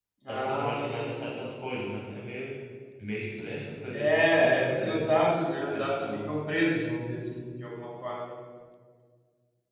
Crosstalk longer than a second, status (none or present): present